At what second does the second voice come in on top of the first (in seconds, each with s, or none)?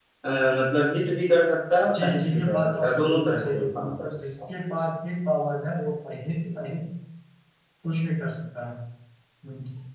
1.8 s